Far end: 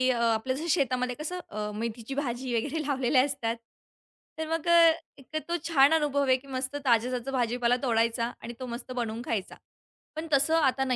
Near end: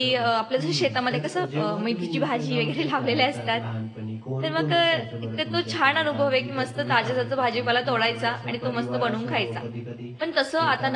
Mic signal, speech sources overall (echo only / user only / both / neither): both